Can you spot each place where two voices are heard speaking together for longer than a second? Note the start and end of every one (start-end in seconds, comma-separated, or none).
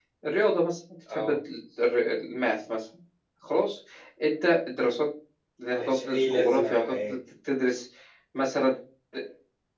5.8-7.2